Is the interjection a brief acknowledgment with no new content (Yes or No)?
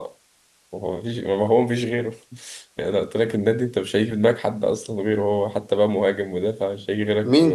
No